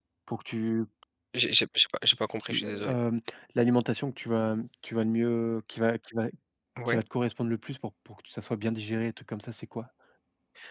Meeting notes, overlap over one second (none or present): none